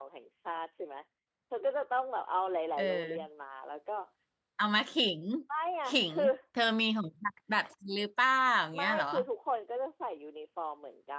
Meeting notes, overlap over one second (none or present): none